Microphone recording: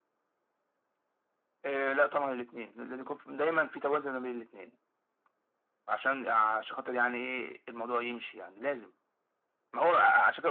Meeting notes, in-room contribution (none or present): none